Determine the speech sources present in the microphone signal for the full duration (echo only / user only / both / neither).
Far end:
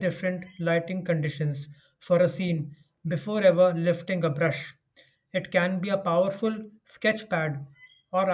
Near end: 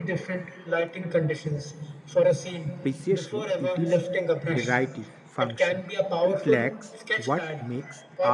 both